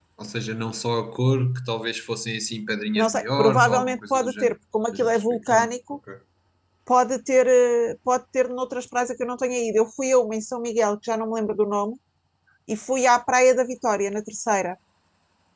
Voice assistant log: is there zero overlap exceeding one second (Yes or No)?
No